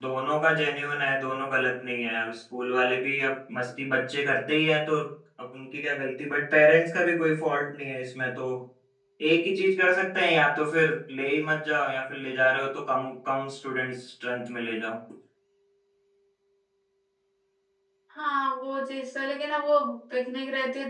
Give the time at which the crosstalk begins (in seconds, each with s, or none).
none